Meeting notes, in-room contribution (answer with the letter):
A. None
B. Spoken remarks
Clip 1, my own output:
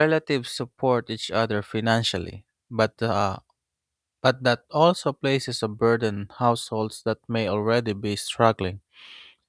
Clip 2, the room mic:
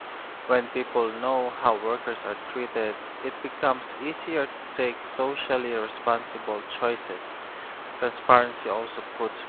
B